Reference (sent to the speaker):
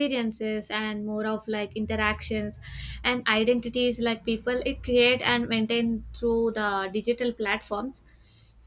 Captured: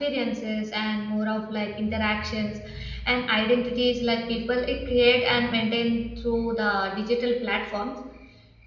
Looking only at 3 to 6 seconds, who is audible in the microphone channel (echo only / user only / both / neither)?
echo only